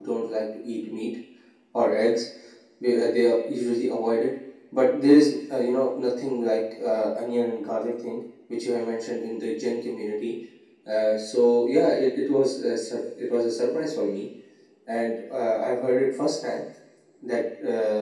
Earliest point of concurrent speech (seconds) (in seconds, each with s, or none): none